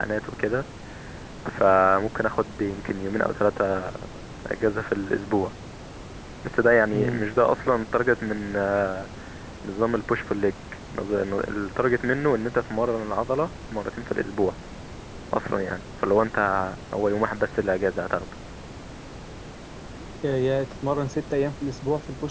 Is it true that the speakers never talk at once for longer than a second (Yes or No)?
Yes